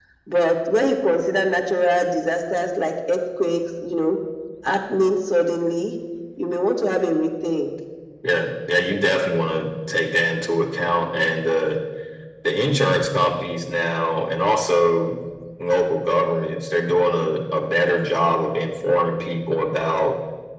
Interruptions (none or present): none